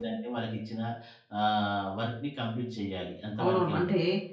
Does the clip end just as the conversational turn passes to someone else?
Yes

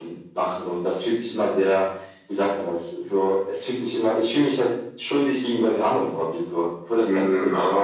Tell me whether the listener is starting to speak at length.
Yes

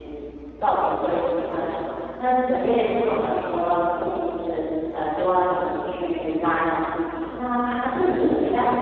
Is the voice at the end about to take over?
No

